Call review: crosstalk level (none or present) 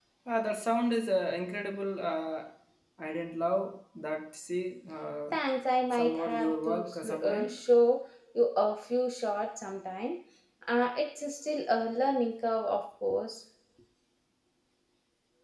present